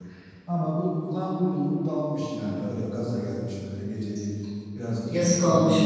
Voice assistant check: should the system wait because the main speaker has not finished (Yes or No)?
No